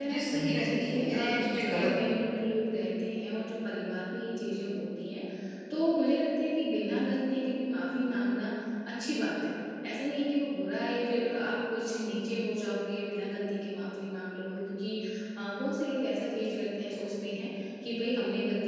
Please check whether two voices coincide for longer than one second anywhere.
Yes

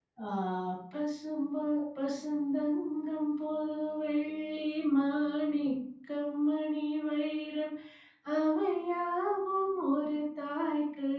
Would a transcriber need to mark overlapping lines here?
No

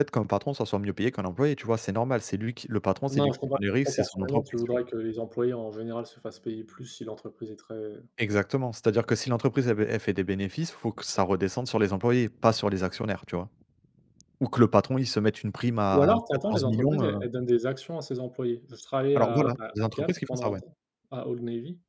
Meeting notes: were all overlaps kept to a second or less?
No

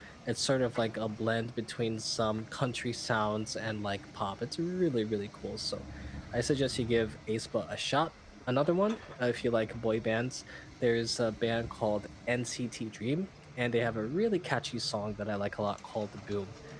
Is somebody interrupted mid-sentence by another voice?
No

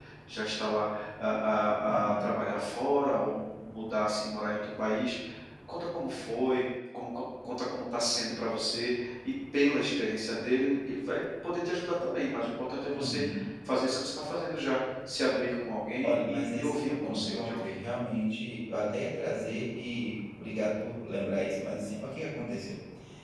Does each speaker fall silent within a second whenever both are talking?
No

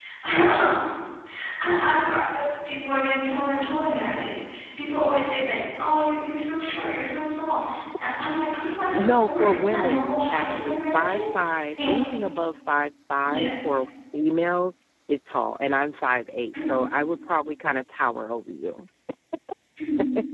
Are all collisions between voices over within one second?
No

